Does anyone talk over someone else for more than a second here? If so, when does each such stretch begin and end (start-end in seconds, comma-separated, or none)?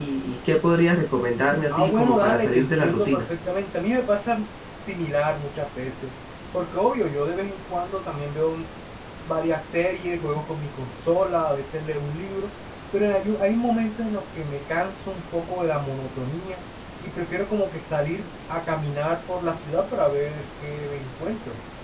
1.7-3.3